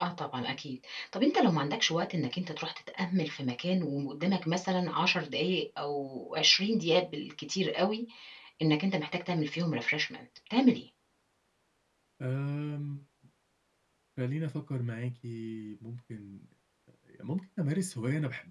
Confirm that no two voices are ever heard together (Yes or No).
Yes